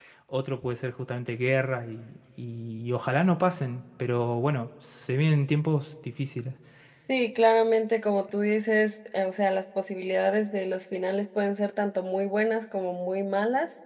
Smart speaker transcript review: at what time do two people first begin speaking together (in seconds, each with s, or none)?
none